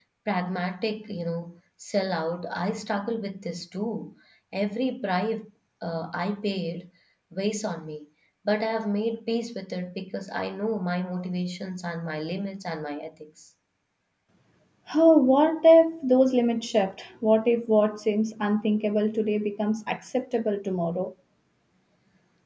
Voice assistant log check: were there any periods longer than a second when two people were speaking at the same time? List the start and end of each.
none

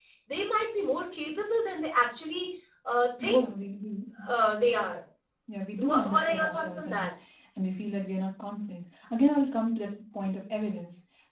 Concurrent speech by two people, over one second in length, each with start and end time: 5.8-7.1

